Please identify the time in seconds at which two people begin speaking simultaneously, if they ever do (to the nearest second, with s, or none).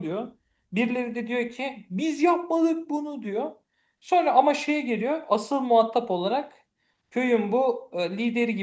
none